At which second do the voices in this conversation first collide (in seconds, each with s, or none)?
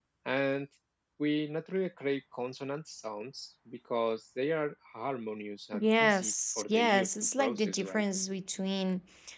5.7 s